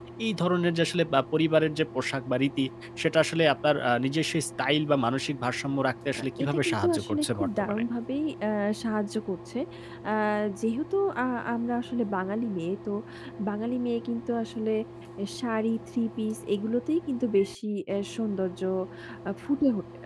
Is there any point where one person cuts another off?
Yes, from 6.2 s

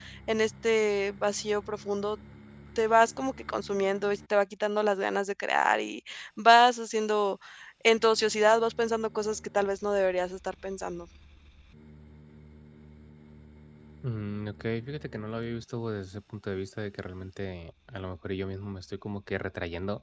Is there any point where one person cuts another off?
No

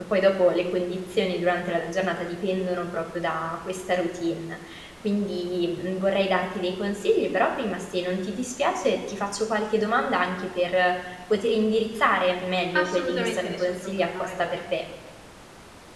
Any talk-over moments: Yes, from 12.7 s

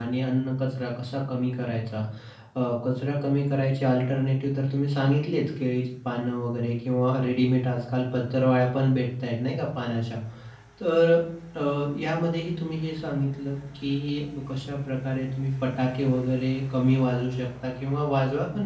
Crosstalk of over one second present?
No

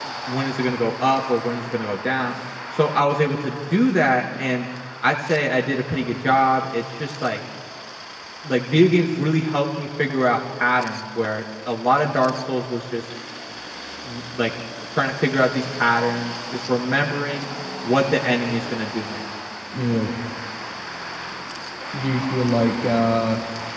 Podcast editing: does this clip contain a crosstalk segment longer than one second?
No

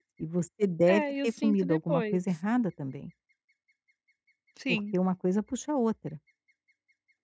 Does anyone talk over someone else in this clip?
Yes, from 0.9 s

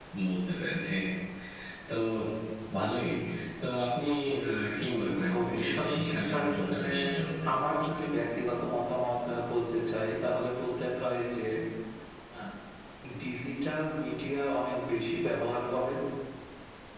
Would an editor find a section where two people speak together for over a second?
Yes, from 5.1 s

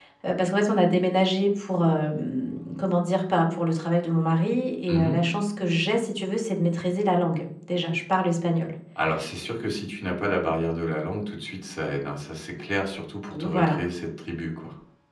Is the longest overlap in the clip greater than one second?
No

